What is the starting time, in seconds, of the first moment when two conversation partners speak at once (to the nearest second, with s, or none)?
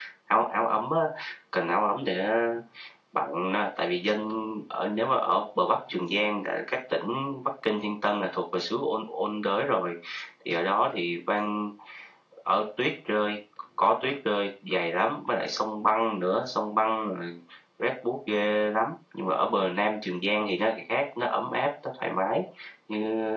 none